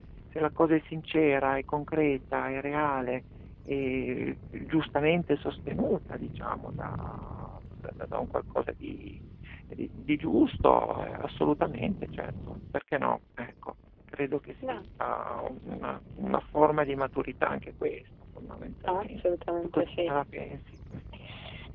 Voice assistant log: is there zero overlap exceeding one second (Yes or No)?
Yes